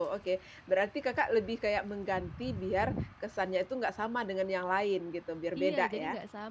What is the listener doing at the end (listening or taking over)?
taking over